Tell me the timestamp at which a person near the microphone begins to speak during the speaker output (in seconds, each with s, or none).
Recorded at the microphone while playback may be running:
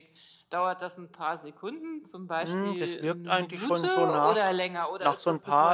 2.4 s